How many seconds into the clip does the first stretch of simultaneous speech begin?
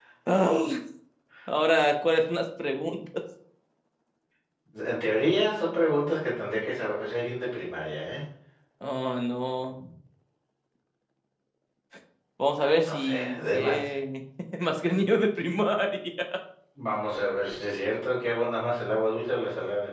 12.6 s

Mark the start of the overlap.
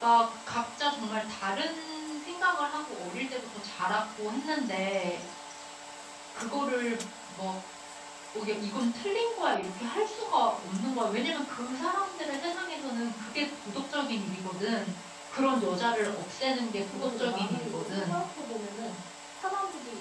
16.9 s

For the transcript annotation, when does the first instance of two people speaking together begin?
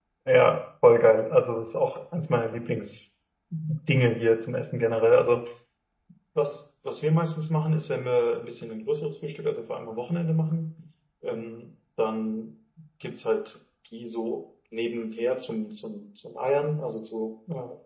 none

